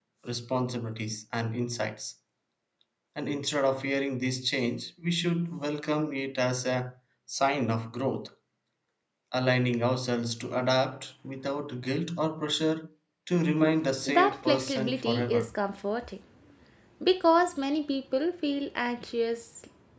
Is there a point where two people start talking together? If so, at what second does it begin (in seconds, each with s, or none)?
14.1 s